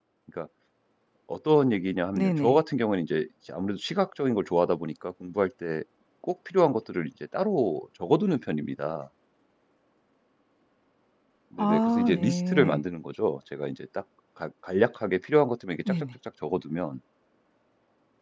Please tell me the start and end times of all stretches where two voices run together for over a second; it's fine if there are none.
11.6-12.8

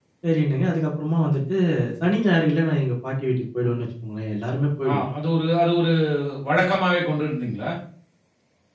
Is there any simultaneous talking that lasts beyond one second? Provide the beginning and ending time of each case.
none

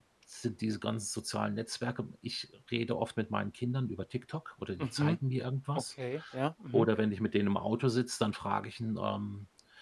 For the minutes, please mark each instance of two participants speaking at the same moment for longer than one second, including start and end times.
none

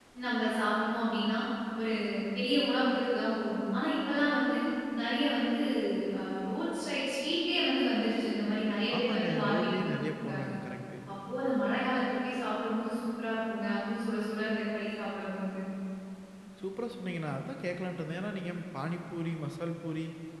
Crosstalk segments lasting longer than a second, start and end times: 9.0-10.5

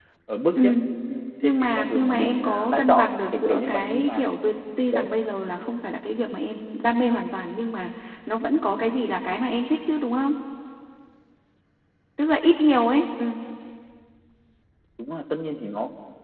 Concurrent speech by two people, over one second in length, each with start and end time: 1.4-4.2

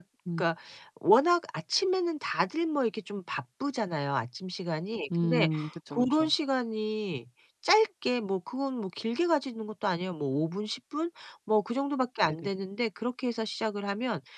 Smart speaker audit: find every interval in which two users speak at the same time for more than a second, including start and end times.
none

